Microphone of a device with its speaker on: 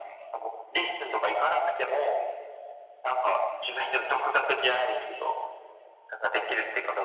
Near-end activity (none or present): none